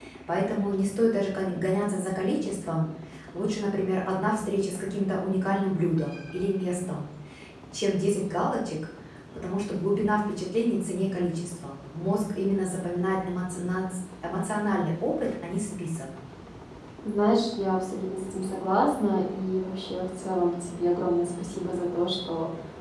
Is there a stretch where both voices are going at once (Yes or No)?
No